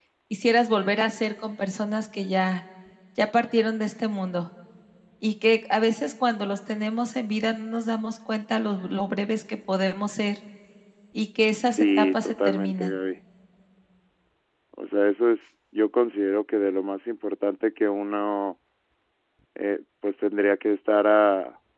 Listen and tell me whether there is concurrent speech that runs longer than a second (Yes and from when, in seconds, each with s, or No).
Yes, from 11.7 s